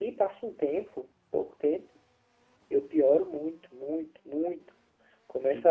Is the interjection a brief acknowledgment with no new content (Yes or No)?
Yes